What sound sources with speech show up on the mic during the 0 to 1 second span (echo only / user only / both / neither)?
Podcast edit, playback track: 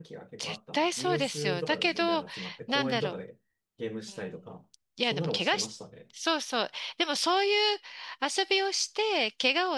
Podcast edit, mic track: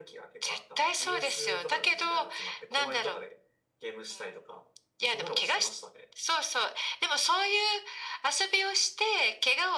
echo only